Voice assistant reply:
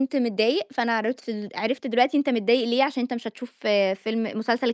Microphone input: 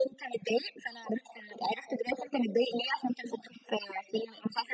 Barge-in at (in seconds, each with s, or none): none